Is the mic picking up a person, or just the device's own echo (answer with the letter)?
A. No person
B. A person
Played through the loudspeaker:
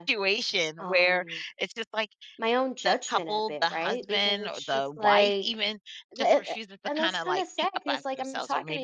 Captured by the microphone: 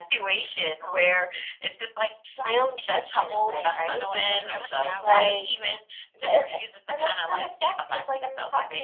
B